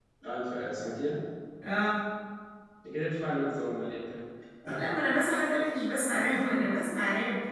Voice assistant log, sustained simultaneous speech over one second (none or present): none